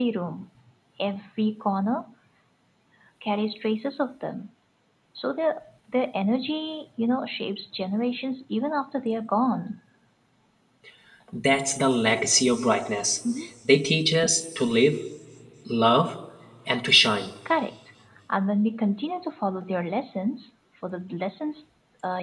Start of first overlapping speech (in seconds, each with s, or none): none